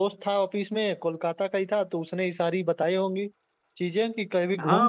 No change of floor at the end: No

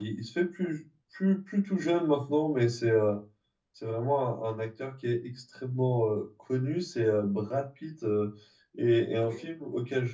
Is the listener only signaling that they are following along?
Yes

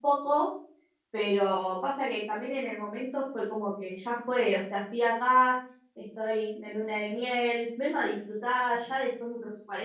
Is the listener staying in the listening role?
Yes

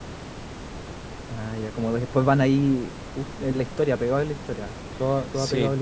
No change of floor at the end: No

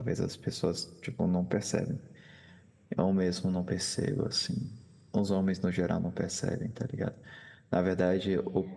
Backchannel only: Yes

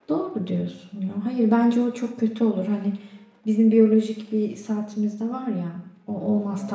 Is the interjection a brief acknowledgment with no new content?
Yes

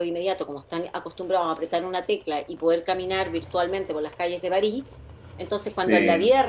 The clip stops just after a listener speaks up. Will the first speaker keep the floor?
Yes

